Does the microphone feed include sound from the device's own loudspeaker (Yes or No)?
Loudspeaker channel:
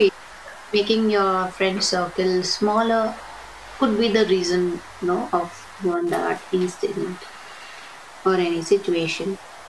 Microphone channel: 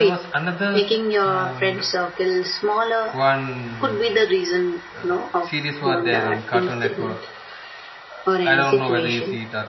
Yes